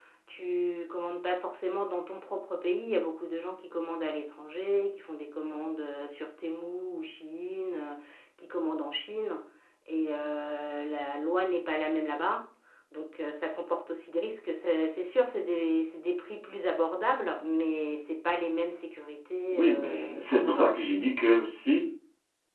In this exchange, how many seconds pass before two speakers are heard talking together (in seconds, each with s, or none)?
19.5 s